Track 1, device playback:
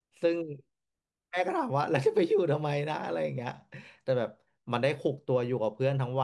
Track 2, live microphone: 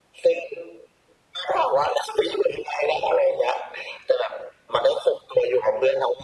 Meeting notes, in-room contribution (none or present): none